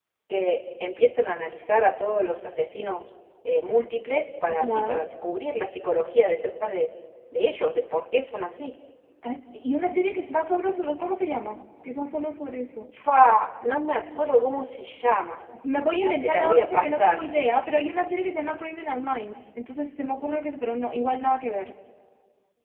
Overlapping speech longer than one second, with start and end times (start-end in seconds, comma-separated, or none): 16.0-17.2